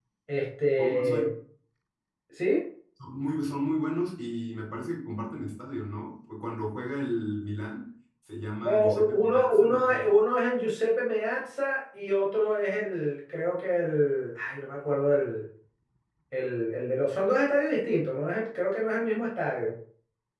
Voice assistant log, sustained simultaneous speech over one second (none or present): present